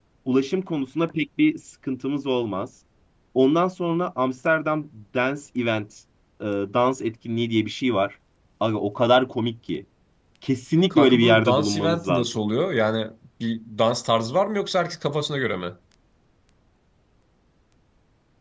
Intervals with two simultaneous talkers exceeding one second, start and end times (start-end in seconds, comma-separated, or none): 10.9-12.3